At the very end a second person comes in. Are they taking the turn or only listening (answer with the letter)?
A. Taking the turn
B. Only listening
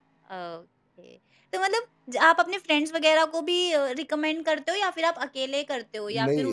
A